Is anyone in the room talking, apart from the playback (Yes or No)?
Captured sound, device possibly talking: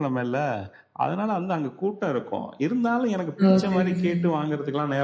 Yes